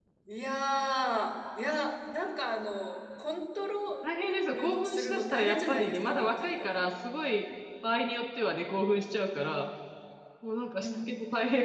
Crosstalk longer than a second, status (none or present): present